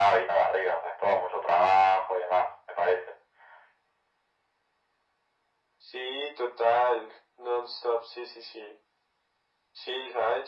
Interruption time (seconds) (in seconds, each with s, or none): none